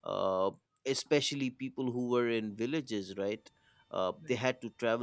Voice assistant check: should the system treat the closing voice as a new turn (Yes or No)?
No